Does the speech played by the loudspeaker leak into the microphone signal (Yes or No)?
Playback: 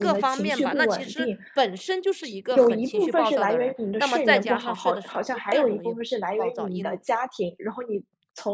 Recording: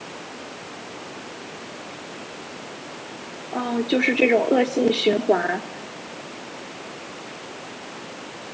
No